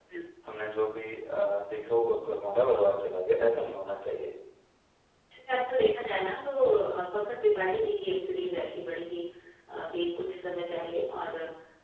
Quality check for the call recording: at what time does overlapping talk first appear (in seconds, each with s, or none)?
none